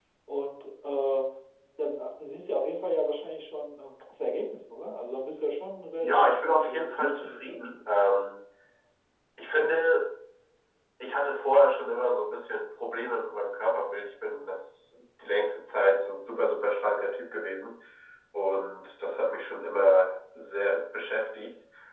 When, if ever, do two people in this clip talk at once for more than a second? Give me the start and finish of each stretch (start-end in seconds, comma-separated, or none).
6.0-7.9